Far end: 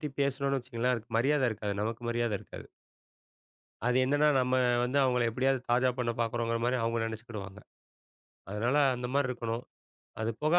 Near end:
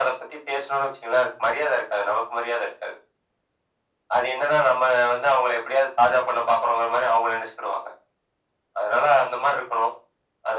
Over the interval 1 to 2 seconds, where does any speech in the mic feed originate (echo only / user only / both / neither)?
echo only